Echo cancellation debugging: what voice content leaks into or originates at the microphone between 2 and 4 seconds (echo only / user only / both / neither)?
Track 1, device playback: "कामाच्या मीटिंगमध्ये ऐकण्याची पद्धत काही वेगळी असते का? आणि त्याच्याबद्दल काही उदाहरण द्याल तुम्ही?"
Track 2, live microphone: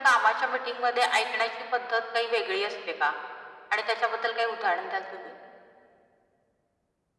echo only